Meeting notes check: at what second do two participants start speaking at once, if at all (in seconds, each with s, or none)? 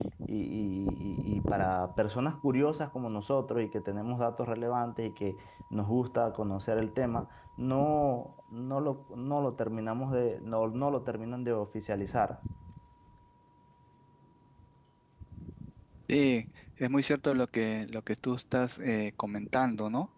none